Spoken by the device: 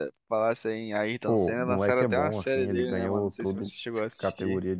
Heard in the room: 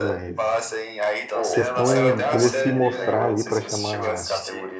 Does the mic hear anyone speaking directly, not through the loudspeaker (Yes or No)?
Yes